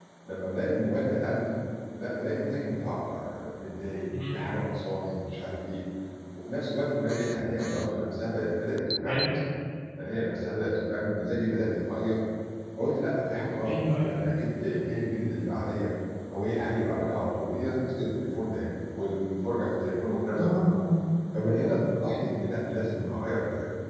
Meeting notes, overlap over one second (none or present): none